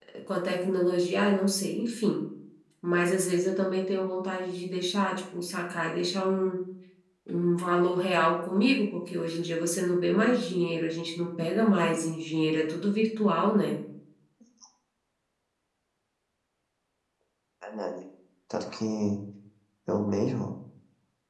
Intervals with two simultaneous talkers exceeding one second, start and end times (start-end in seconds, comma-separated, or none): none